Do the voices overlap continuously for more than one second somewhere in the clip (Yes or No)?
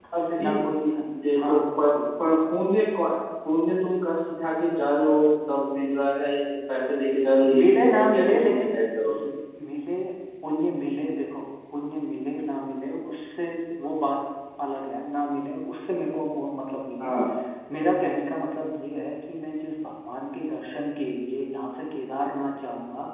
Yes